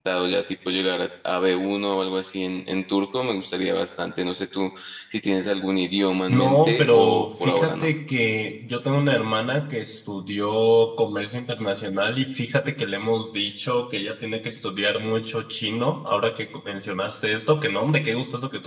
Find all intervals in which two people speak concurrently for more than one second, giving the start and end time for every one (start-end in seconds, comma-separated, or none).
6.3-7.9